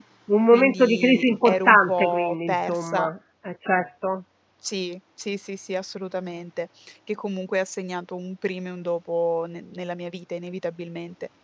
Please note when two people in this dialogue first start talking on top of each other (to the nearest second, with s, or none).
1 s